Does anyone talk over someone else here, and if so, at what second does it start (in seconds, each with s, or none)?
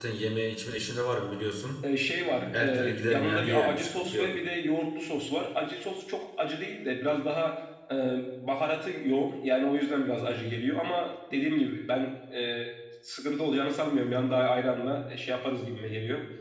2.5 s